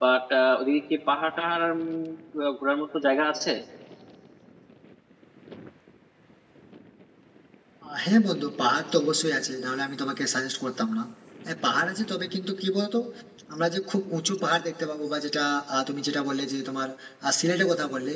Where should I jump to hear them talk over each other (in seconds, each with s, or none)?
none